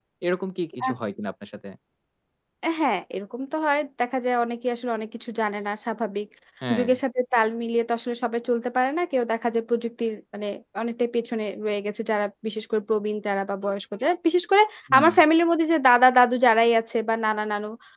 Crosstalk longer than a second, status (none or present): none